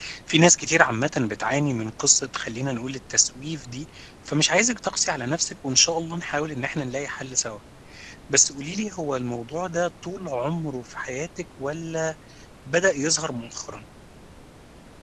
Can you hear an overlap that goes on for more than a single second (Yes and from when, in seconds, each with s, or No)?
No